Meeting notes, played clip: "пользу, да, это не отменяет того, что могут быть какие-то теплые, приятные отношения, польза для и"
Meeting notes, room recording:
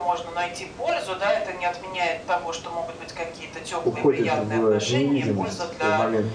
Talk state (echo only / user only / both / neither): both